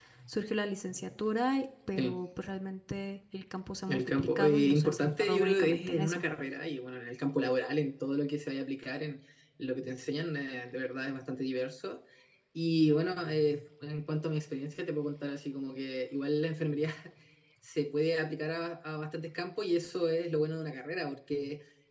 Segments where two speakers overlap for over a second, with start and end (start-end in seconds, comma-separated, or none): 3.9-6.2